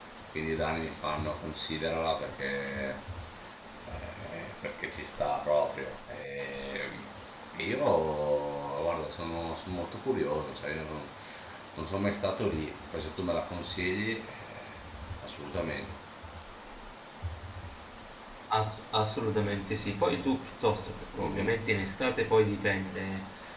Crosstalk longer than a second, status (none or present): none